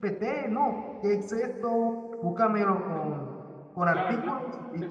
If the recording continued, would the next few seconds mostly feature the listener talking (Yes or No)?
Yes